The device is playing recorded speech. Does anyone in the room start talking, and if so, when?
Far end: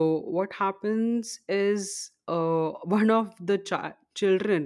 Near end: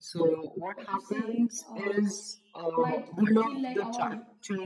1 s

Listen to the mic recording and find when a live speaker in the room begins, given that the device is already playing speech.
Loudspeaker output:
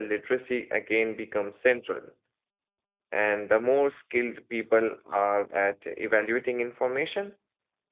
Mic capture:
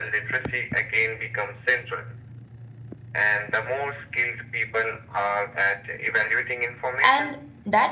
7 s

